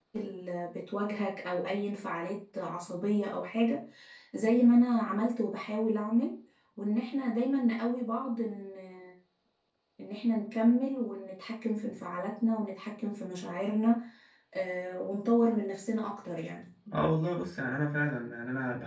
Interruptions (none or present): none